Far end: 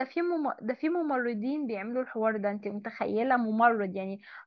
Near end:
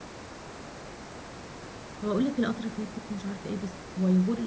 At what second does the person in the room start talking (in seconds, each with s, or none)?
2.0 s